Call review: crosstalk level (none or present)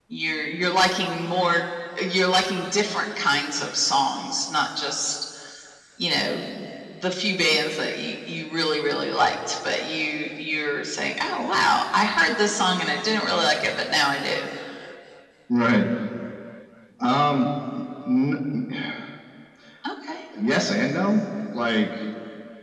none